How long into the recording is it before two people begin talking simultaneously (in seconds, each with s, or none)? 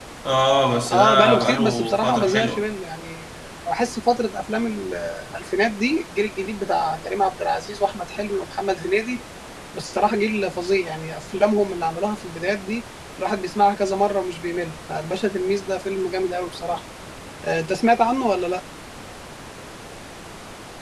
0.9 s